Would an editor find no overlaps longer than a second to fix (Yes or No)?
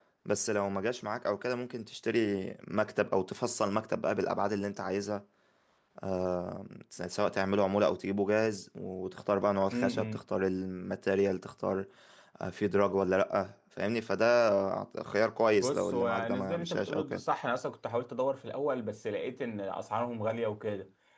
No